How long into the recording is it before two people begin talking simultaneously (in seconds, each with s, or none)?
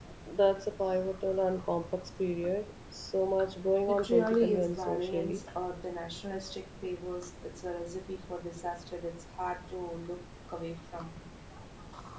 3.9 s